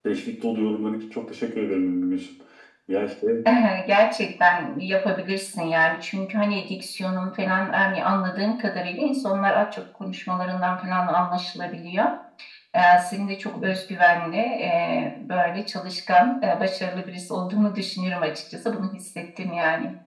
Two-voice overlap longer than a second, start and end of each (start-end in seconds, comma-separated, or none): none